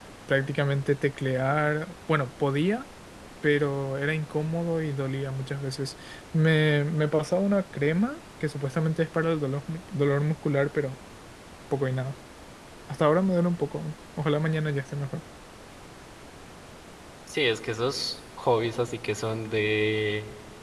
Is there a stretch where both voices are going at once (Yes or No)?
No